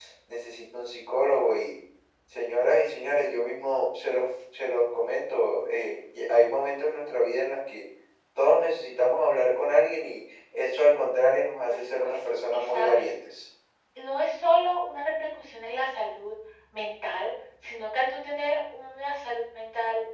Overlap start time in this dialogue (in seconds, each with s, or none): 11.7 s